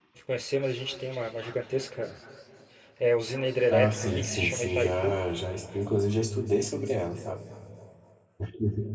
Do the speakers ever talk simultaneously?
Yes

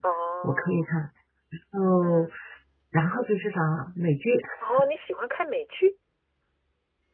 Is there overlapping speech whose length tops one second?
No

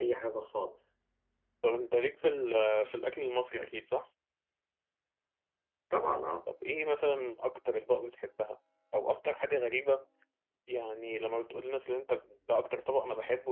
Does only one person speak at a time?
Yes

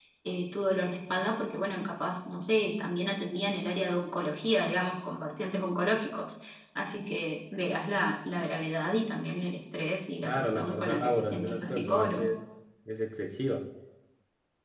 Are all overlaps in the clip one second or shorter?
No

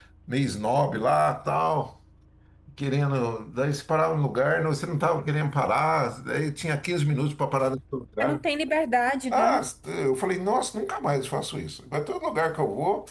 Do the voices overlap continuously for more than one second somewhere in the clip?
No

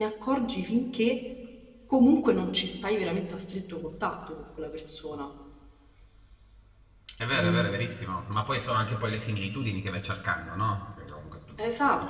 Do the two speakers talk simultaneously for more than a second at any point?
No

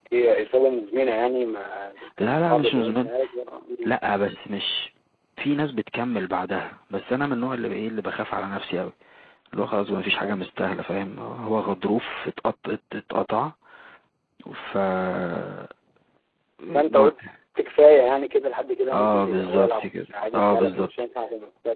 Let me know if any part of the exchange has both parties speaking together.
Yes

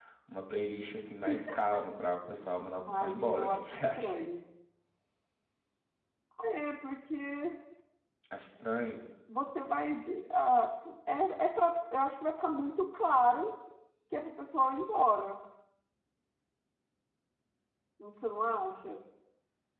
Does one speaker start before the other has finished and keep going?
Yes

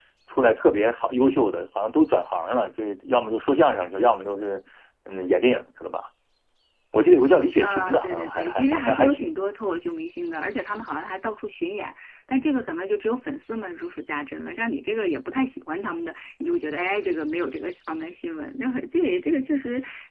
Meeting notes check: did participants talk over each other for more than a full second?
Yes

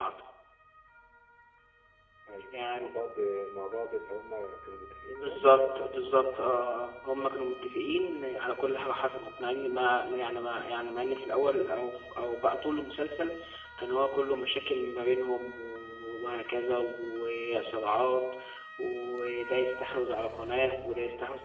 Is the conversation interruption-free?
No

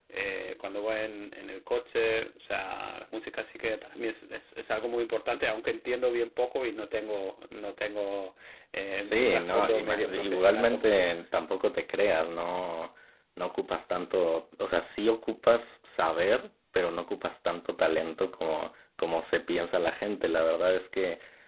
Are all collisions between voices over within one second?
No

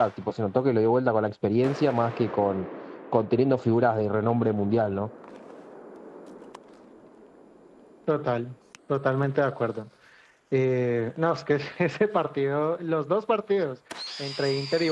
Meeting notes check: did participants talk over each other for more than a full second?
No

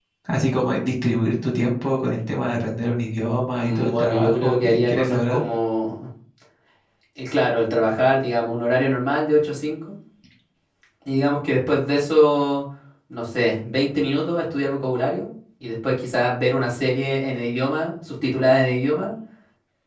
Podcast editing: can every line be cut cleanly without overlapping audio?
No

